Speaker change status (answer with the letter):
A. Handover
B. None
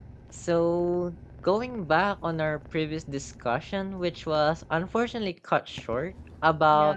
B